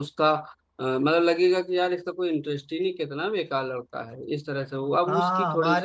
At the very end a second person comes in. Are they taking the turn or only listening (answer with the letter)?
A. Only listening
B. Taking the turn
B